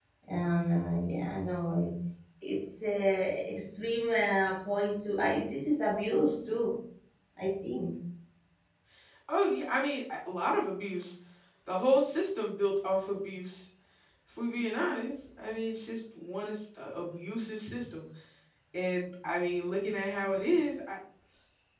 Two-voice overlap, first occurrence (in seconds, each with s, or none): none